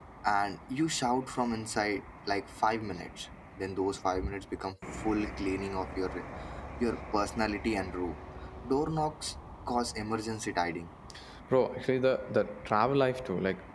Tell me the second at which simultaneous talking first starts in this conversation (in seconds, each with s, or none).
none